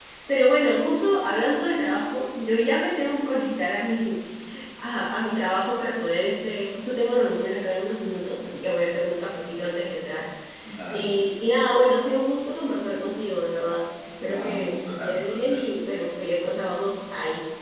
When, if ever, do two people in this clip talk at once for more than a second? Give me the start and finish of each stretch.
14.2-15.7

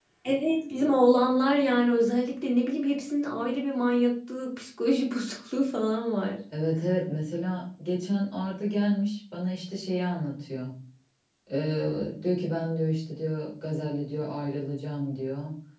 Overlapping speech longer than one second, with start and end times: none

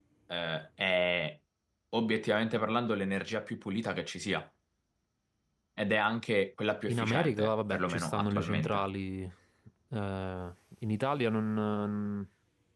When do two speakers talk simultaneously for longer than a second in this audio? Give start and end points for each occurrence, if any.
6.9-8.8

